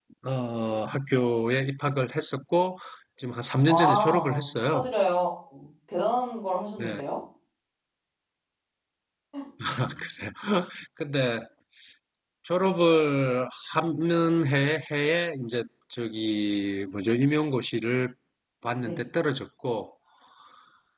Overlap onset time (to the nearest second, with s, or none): 4 s